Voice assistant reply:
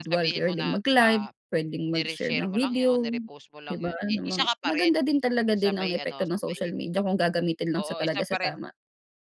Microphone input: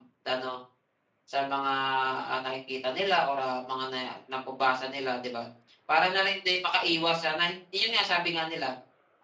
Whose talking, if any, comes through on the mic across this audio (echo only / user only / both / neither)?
user only